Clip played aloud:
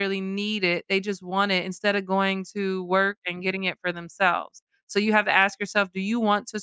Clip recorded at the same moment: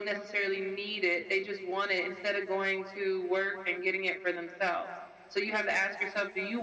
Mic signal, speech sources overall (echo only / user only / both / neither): echo only